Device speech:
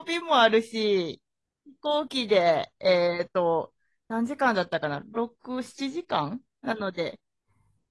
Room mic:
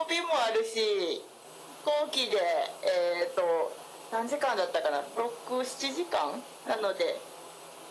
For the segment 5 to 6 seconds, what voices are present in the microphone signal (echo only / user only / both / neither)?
echo only